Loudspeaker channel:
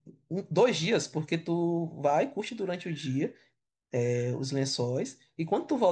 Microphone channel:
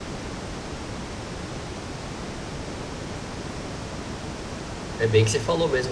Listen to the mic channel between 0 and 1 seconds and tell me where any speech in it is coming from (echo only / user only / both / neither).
neither